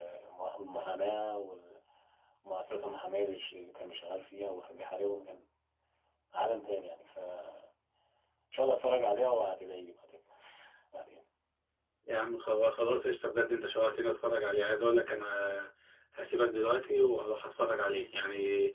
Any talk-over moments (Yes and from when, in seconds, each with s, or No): No